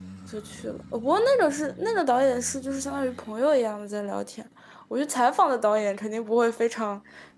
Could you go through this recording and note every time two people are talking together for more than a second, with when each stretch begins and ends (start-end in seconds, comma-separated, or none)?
none